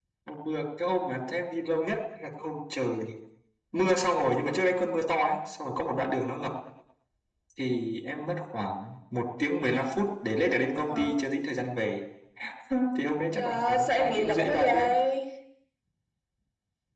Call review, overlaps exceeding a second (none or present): present